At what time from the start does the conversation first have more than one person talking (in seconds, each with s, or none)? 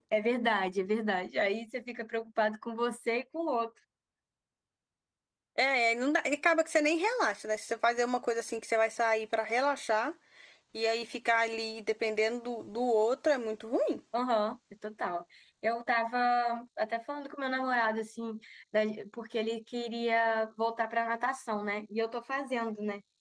none